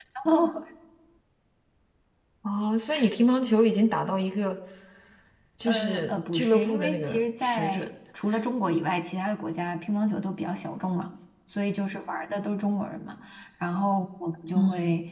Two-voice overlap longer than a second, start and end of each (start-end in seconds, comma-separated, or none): 5.6-7.9